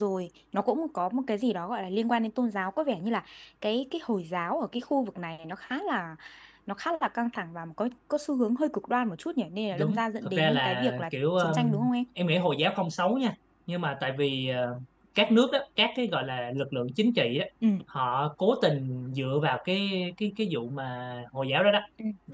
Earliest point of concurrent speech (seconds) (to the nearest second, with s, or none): 10 s